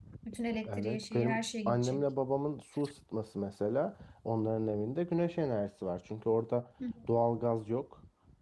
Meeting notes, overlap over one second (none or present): present